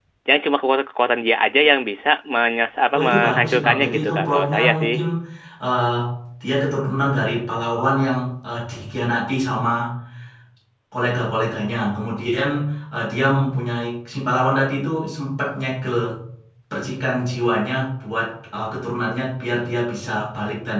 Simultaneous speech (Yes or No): Yes